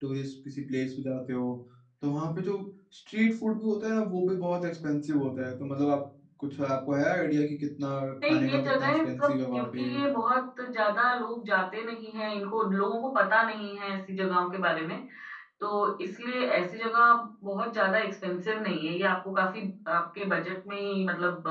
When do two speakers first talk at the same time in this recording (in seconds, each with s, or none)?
8.2 s